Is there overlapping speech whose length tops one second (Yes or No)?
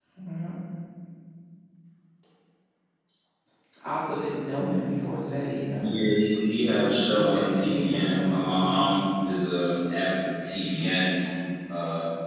Yes